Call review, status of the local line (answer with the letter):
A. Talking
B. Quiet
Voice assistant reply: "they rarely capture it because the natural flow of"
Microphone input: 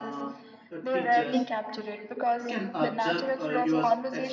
A